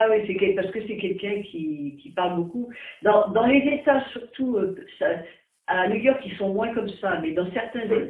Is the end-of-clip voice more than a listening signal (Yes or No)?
No